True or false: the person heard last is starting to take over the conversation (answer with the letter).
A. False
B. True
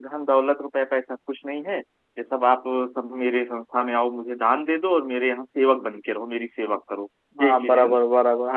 B